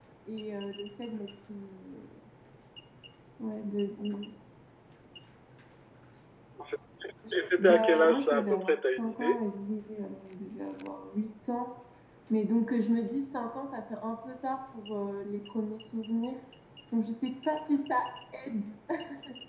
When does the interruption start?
7.3 s

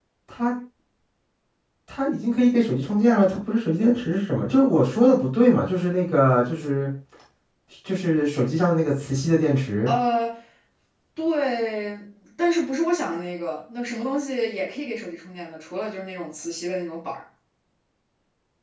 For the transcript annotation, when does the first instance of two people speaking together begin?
none

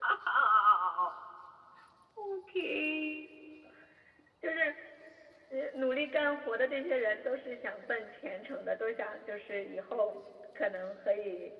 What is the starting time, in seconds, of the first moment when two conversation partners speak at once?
none

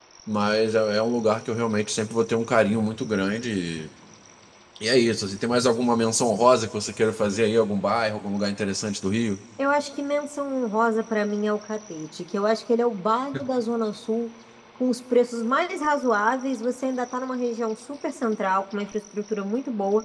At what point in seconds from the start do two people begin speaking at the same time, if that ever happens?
none

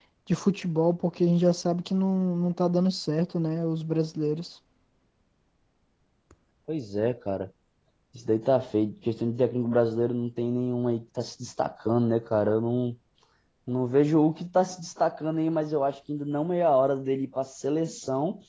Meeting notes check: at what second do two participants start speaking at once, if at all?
none

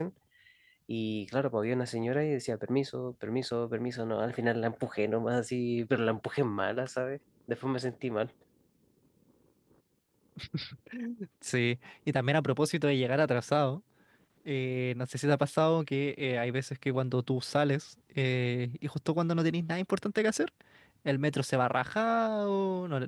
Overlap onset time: none

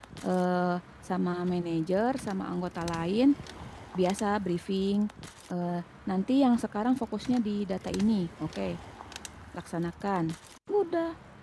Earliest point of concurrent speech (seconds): none

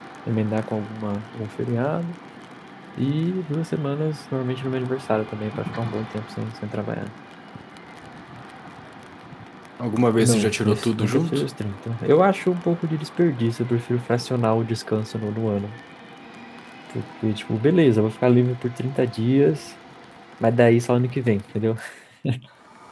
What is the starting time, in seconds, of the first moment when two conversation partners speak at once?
10.2 s

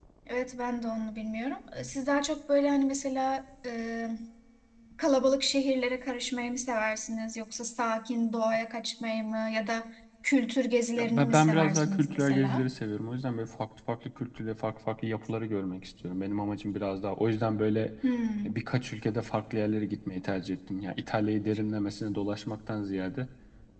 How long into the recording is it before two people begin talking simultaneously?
10.9 s

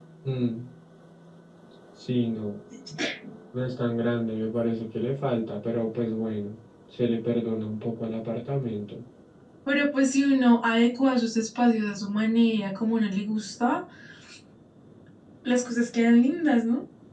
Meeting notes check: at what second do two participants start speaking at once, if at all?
none

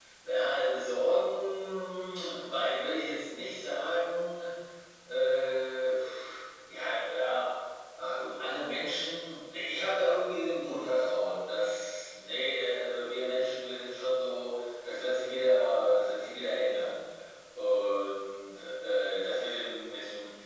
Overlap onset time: none

